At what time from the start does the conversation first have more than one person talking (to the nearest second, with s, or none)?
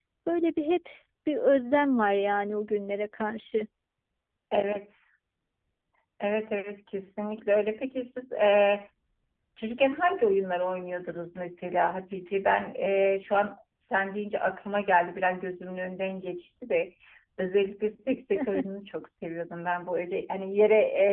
none